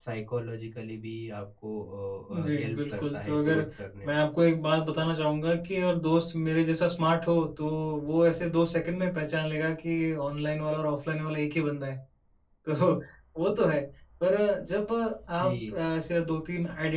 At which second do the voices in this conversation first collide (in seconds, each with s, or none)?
2.3 s